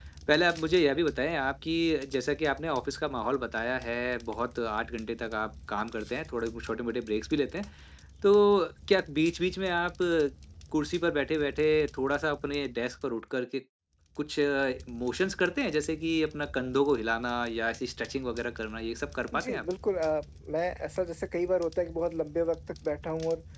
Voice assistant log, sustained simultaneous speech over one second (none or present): none